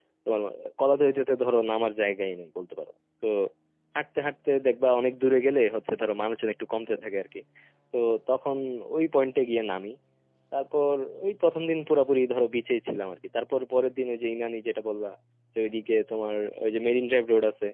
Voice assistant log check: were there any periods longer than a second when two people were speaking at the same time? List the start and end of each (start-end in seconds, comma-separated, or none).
none